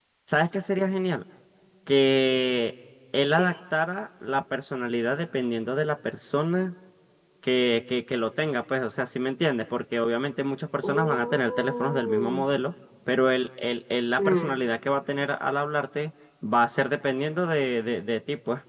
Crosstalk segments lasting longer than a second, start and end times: 10.8-12.4

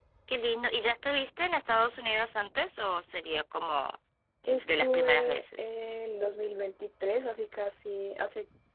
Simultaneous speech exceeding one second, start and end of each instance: 4.5-5.7

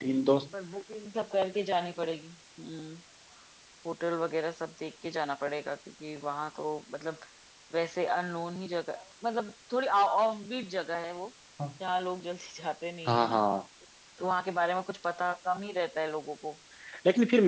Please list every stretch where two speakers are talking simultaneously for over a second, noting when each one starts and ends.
none

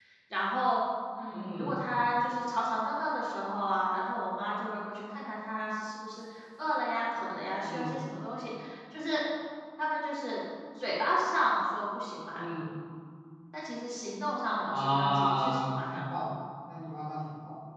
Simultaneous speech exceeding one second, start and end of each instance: 14.7-16.0

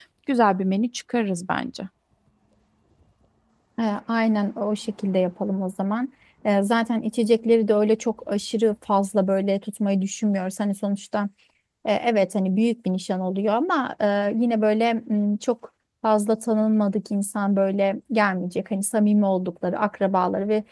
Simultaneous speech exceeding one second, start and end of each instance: none

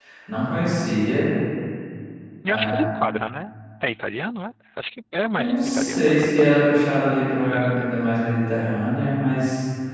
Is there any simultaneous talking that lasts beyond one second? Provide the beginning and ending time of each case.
5.4-6.6

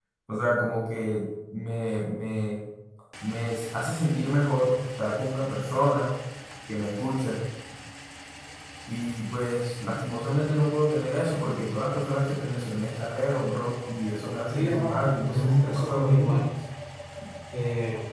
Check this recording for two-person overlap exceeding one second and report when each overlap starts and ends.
14.5-16.4

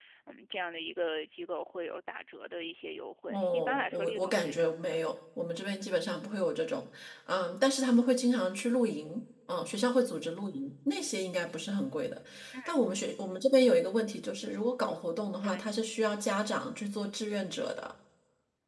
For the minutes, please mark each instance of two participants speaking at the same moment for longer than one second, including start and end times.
3.3-5.0

